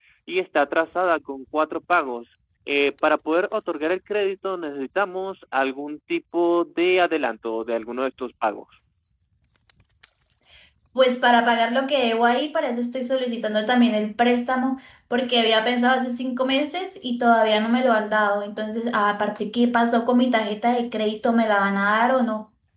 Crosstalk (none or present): none